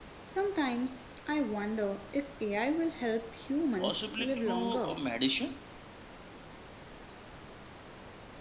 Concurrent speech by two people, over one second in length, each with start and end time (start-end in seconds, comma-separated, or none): 3.8-5.0